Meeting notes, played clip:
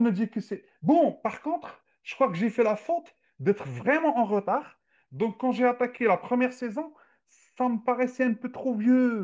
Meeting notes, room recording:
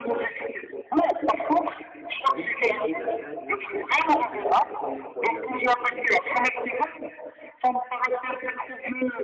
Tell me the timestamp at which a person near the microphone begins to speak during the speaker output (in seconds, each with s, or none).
2.1 s